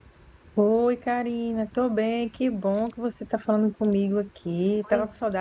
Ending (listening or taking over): taking over